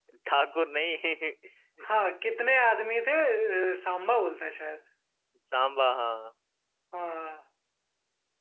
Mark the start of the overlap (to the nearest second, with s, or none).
none